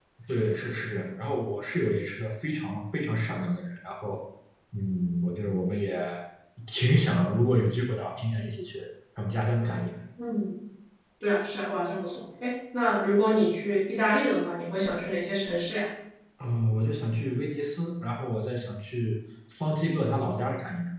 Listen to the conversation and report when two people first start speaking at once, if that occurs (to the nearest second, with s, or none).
none